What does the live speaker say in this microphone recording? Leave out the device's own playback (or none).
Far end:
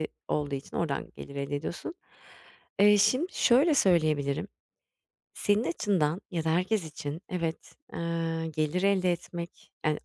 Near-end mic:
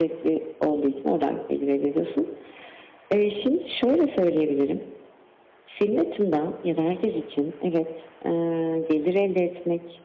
none